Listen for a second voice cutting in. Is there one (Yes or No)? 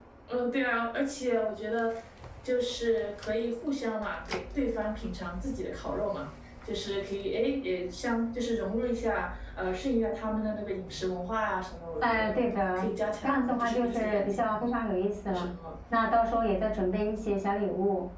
Yes